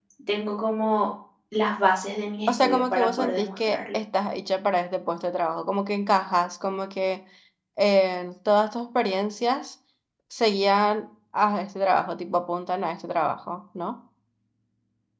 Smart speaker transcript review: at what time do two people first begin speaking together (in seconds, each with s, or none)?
2.5 s